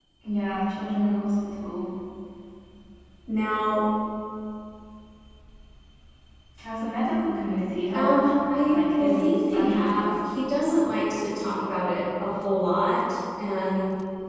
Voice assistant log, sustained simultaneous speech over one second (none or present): present